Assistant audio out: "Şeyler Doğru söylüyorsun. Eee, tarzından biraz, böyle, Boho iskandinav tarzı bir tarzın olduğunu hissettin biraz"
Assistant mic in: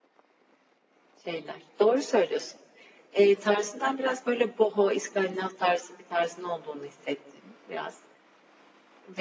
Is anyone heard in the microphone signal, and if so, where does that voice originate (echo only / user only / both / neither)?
echo only